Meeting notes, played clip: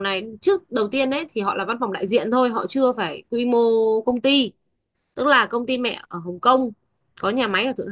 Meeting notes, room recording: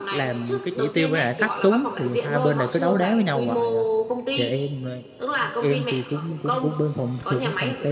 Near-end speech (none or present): present